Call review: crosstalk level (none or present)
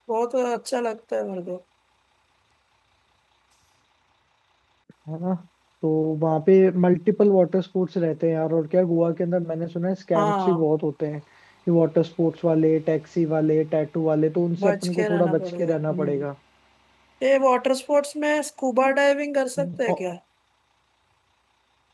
present